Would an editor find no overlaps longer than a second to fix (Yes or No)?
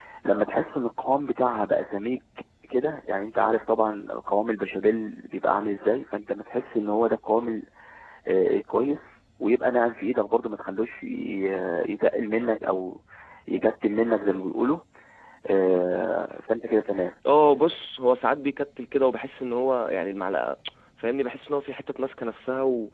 Yes